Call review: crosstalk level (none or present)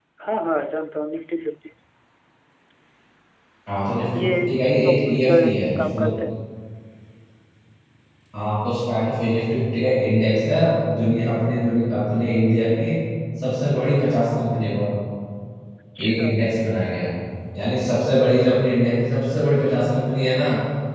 present